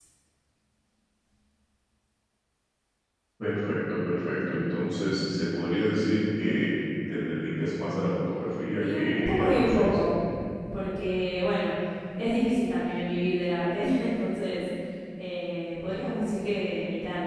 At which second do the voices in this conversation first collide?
8.8 s

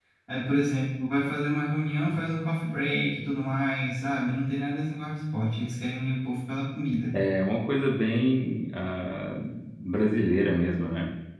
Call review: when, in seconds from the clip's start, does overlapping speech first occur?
none

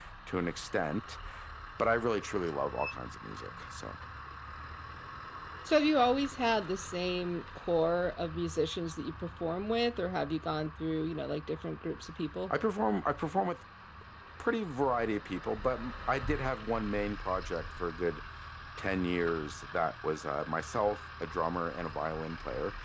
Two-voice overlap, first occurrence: none

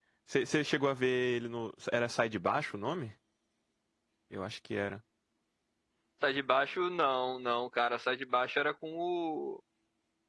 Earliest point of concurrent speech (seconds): none

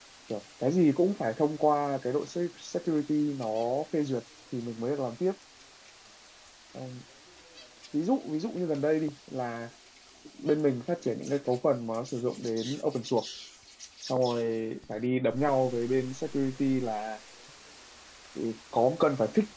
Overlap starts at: none

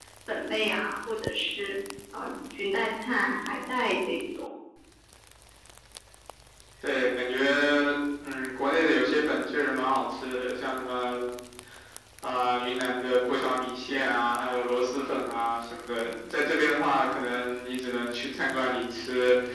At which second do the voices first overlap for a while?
none

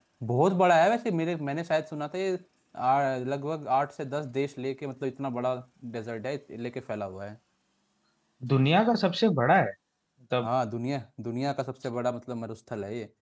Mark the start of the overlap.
none

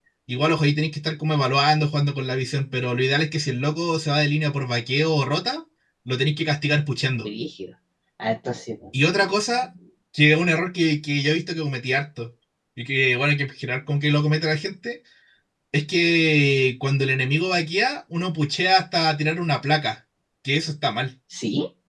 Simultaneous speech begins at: none

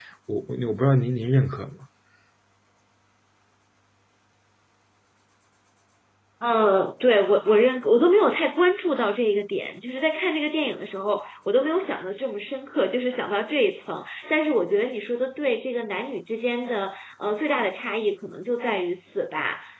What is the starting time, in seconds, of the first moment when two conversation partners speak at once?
none

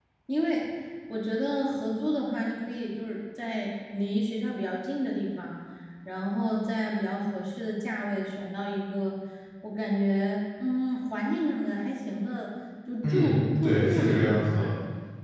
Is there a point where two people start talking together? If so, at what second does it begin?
13.0 s

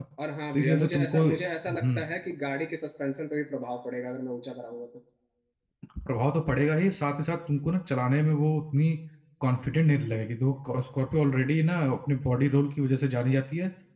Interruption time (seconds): 0.5 s

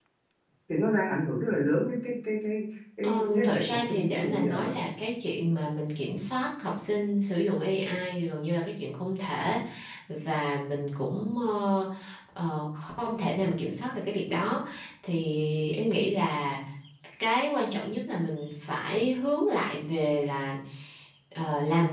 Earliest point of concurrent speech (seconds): 3.0 s

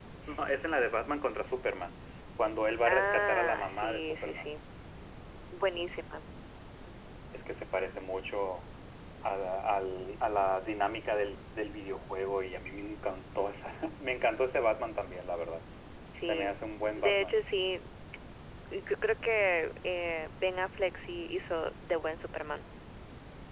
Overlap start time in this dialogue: 2.9 s

